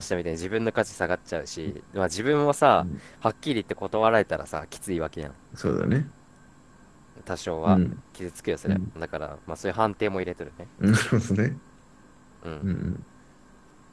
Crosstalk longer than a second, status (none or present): none